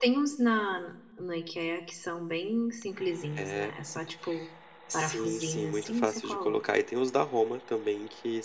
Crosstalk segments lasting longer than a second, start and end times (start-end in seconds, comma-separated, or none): 4.9-6.6